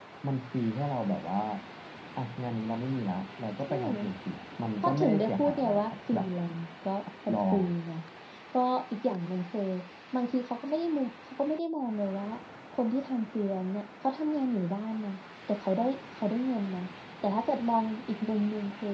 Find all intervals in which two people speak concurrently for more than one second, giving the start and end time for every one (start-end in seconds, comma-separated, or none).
4.8-6.3